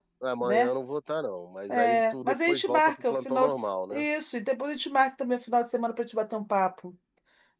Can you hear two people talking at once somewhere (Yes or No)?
Yes